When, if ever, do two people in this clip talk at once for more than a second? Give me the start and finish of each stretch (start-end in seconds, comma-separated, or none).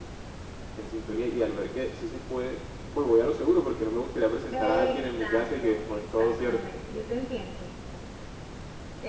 4.5-6.6